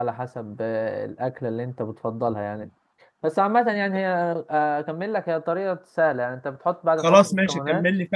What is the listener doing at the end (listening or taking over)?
taking over